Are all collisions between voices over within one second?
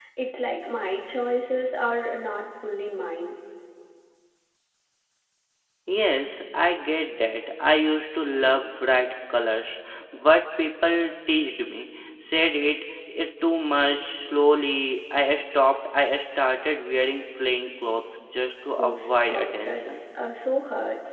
No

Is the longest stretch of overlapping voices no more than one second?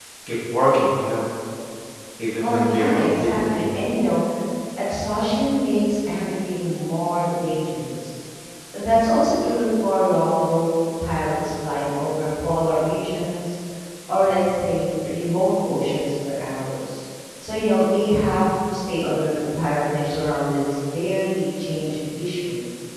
No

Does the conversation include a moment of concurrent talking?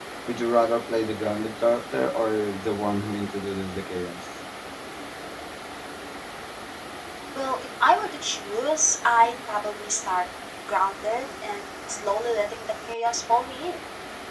No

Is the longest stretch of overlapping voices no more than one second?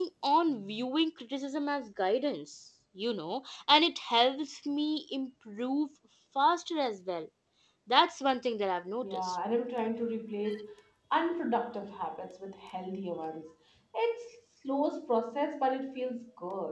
Yes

